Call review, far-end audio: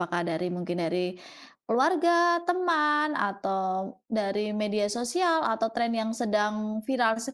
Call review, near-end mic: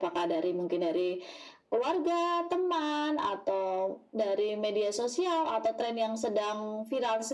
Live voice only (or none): none